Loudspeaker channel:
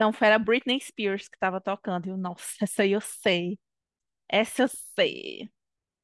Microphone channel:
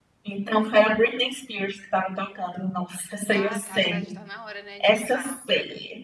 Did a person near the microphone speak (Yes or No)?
Yes